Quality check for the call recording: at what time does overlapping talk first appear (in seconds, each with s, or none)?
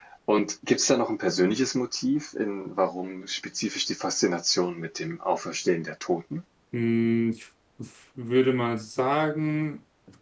none